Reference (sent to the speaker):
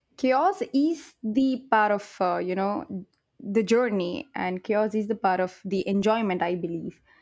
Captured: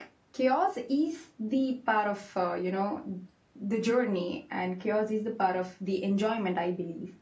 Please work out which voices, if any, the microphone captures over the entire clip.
echo only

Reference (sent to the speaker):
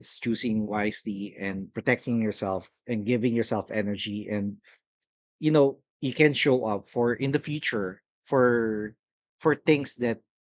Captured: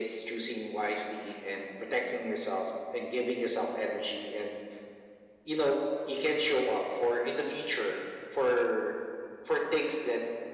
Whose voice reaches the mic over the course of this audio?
echo only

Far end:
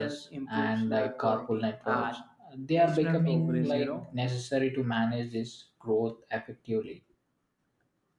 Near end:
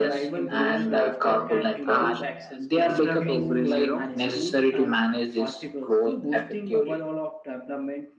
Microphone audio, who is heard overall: both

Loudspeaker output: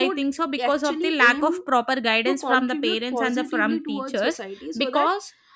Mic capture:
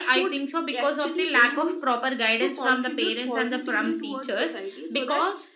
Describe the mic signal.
echo only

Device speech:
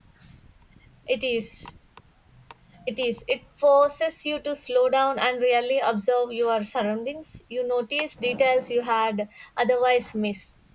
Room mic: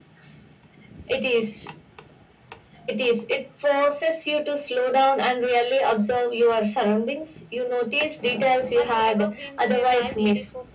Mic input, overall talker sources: both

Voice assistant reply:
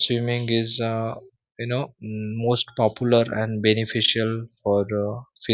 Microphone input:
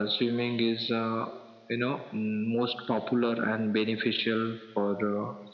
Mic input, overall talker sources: echo only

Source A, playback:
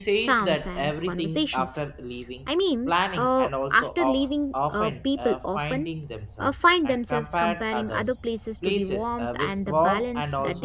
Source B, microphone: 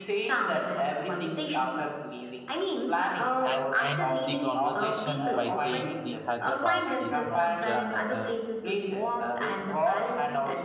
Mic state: both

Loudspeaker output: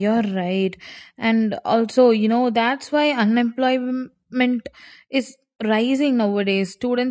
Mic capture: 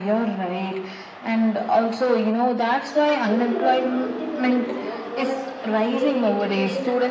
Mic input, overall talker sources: both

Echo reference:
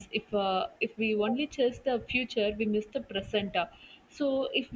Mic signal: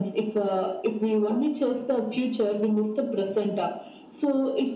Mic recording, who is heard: echo only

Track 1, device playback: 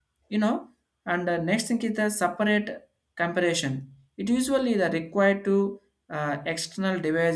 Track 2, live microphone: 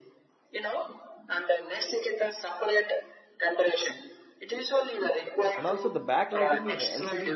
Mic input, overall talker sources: both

